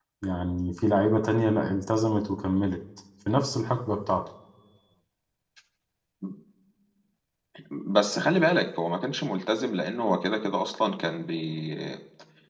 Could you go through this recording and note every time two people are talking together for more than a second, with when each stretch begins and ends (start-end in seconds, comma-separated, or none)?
none